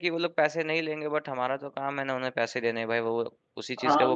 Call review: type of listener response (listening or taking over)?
taking over